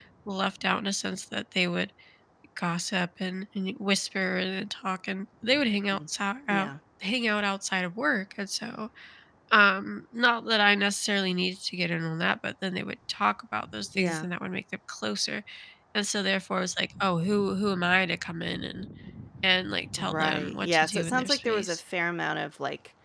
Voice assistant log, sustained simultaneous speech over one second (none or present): present